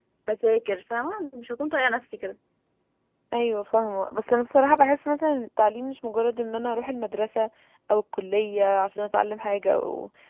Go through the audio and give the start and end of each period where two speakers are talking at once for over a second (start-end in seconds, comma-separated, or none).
none